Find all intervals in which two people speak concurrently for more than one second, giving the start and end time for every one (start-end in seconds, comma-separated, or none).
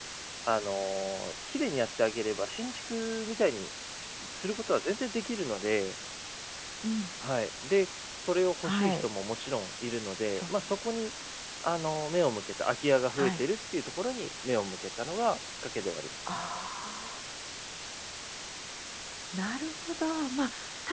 none